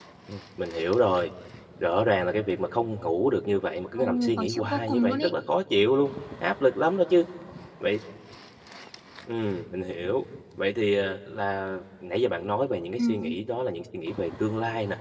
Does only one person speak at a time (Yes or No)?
No